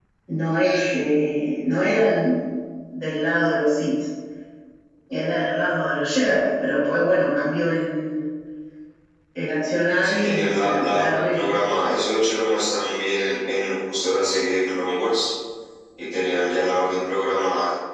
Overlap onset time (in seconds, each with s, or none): 10.0 s